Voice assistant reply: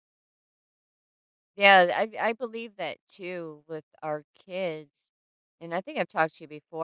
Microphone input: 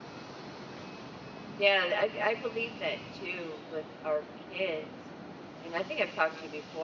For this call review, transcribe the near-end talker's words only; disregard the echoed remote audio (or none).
none